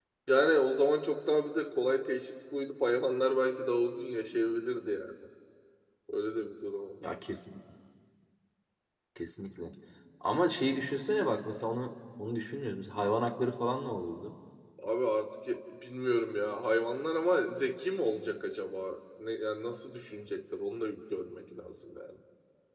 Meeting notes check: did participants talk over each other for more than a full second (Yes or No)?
No